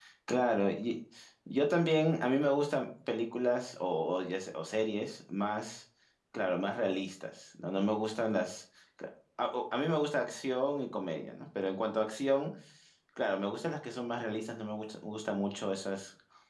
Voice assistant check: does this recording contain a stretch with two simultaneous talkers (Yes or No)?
No